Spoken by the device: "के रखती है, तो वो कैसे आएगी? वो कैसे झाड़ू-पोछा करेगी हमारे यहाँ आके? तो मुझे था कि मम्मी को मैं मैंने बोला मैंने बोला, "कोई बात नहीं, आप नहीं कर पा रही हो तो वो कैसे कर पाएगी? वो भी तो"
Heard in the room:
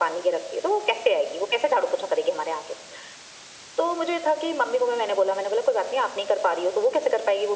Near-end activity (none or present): none